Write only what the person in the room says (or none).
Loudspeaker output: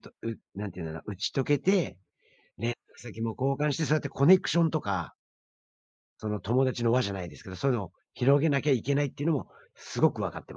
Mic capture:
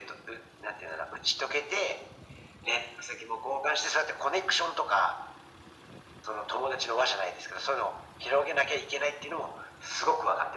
none